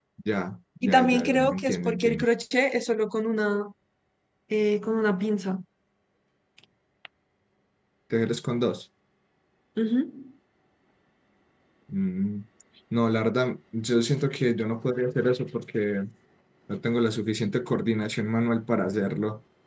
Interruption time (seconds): 0.8 s

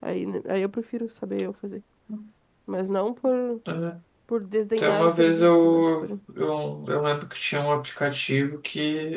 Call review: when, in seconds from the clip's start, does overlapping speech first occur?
4.8 s

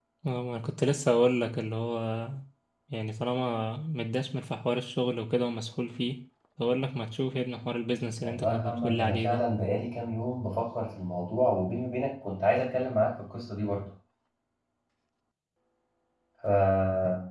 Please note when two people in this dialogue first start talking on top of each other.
8.2 s

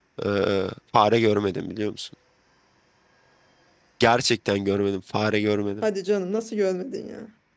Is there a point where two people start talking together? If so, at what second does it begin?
none

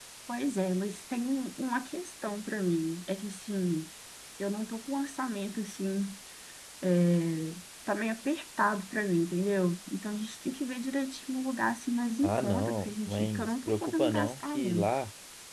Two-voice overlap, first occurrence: 12.2 s

